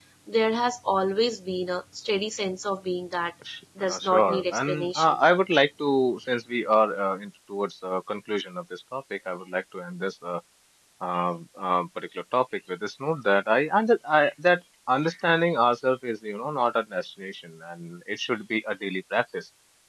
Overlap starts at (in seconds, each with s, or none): 3.8 s